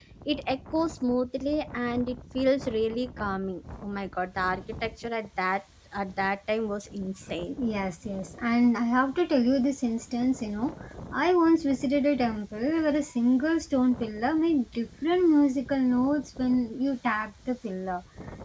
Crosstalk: none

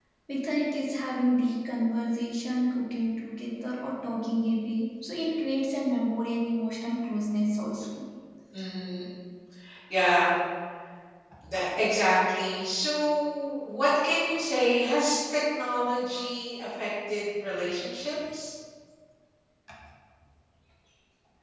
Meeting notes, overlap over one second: none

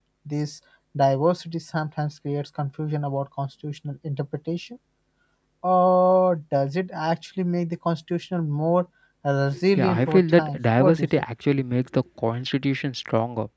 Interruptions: present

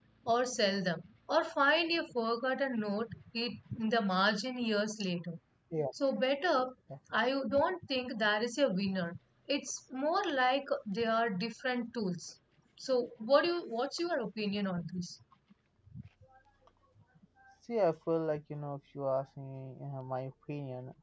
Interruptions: none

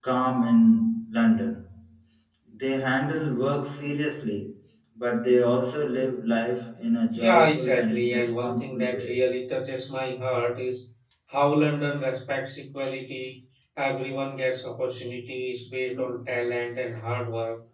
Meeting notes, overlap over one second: present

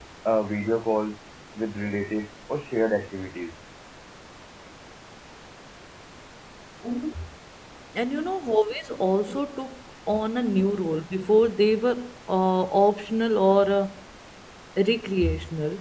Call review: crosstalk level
none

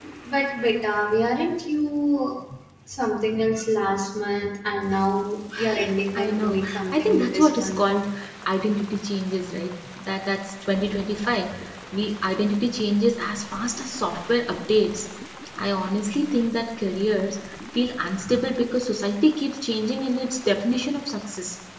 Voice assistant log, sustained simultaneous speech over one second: present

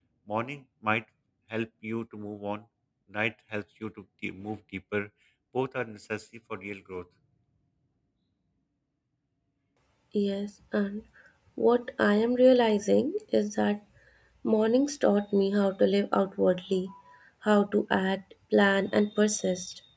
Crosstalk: none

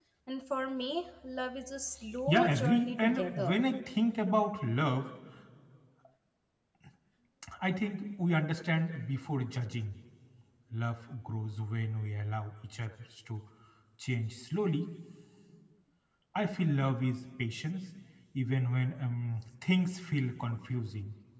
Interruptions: present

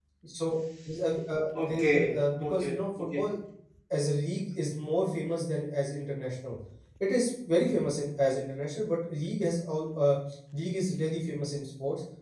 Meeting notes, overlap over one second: present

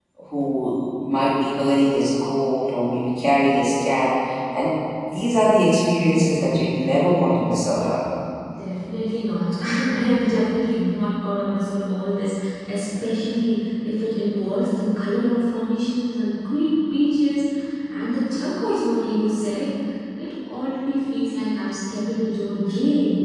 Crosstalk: none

